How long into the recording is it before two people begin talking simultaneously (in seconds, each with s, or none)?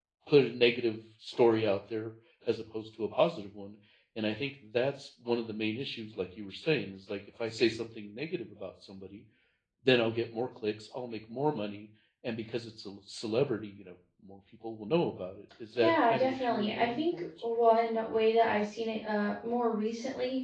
15.8 s